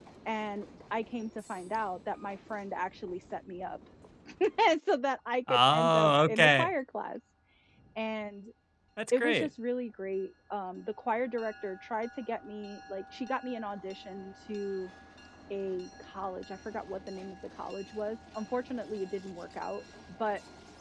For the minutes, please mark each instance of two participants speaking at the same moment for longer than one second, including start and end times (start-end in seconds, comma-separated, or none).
5.5-6.7